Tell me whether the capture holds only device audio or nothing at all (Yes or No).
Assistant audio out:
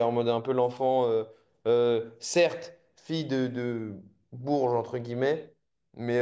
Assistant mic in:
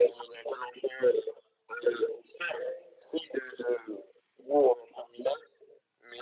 Yes